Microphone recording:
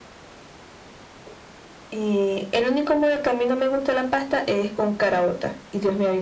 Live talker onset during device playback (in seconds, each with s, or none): none